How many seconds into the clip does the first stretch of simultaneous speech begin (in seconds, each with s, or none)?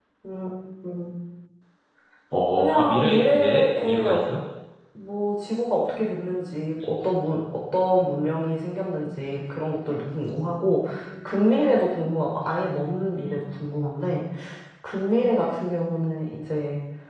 2.6 s